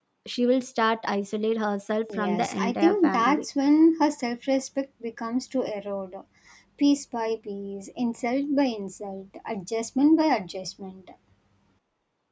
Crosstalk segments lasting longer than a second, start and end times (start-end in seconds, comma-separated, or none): 2.1-3.5